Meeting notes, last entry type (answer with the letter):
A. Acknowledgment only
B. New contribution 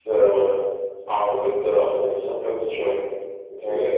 A